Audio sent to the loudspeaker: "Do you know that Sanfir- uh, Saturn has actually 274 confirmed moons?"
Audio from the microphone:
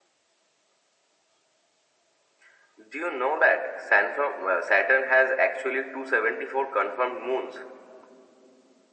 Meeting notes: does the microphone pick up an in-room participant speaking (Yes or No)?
No